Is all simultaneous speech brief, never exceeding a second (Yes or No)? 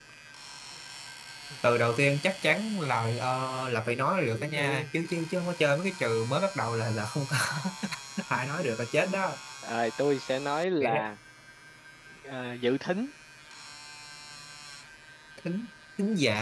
Yes